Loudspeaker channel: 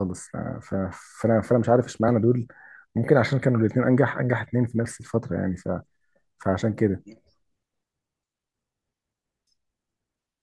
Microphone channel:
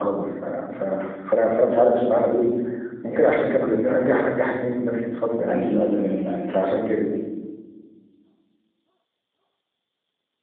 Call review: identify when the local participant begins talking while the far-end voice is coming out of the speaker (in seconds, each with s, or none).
5.5 s